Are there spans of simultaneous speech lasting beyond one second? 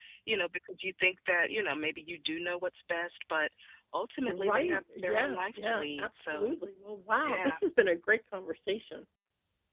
Yes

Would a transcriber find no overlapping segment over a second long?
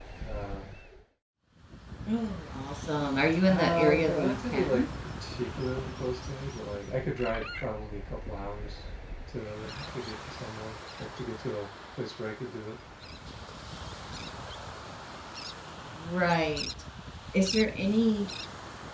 No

